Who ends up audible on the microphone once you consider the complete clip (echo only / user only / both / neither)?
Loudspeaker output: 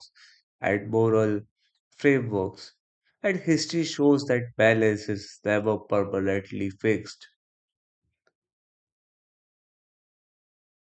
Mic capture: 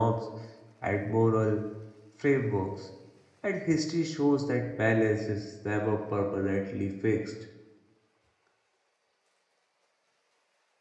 echo only